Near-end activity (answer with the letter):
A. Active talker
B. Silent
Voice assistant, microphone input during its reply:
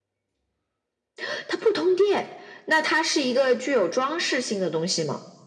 B